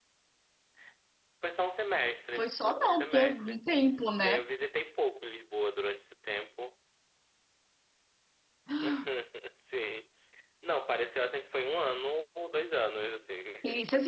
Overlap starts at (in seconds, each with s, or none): 2.4 s